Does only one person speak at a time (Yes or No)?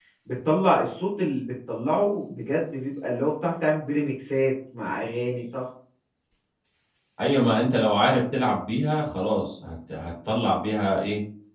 Yes